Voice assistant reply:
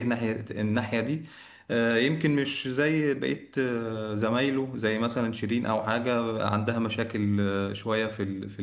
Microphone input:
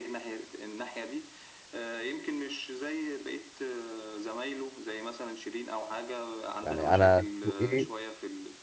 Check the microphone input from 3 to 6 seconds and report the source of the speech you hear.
echo only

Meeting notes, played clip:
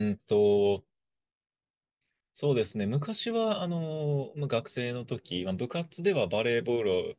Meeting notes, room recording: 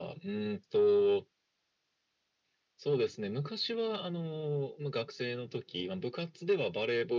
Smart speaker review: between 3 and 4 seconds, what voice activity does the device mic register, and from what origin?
echo only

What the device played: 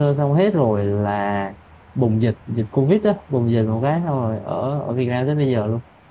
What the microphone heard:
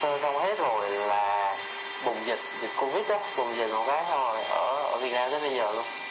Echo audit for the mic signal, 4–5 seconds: echo only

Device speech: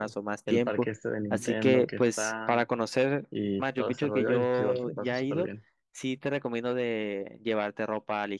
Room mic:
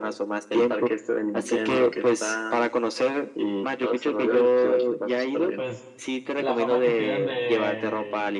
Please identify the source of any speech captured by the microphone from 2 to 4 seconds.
echo only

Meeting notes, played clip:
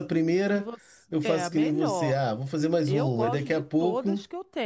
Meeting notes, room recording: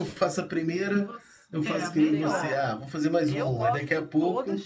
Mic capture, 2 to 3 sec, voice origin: both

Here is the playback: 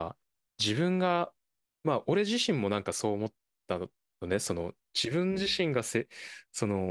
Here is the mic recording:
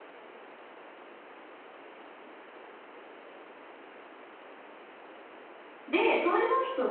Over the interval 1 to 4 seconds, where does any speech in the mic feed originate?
neither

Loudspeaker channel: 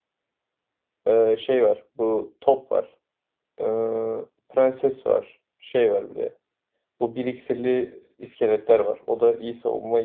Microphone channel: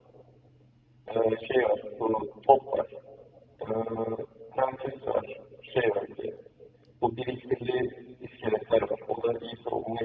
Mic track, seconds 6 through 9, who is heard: echo only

